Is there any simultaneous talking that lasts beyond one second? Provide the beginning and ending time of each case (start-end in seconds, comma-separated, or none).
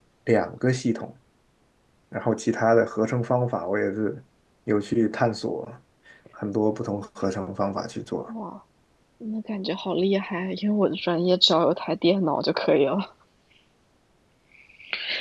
none